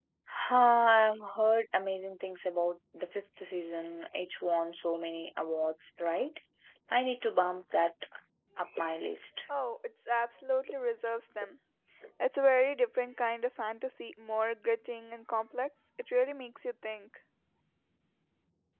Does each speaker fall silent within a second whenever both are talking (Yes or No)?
Yes